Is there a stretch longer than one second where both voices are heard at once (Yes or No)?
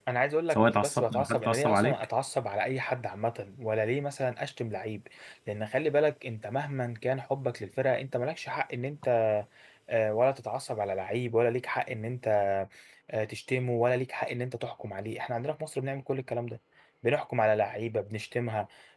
Yes